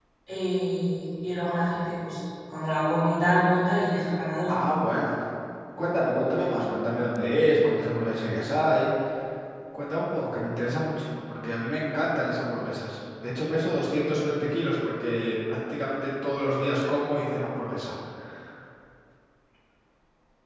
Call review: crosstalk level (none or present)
none